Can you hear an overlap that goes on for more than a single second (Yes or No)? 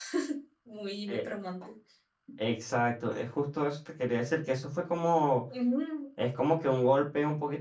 No